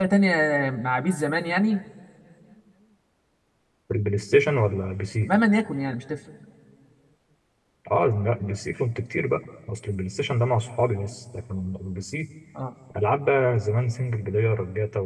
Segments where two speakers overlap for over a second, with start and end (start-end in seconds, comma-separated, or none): none